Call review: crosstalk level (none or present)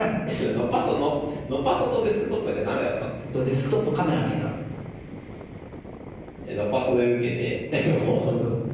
none